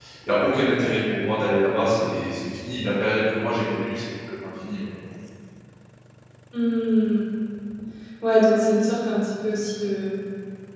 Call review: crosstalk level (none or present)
none